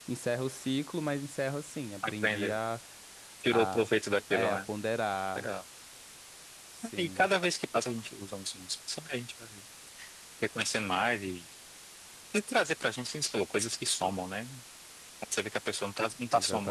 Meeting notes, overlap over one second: none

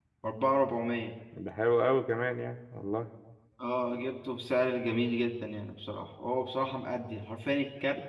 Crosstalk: none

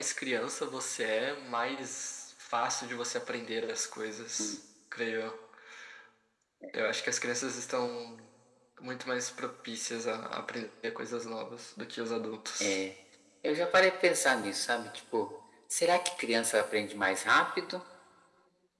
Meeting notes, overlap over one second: none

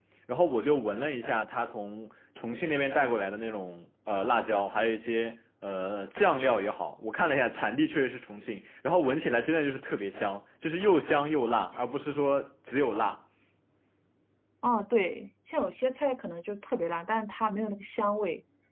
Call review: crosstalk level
none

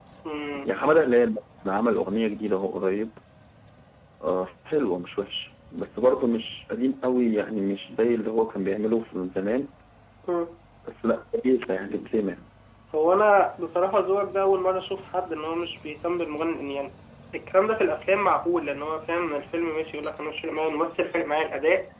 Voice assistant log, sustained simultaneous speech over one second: none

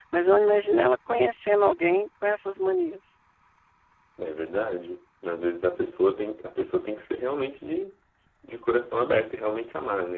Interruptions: none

